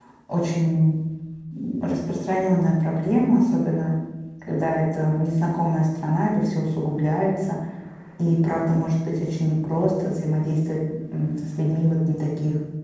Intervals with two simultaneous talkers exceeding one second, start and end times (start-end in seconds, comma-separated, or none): none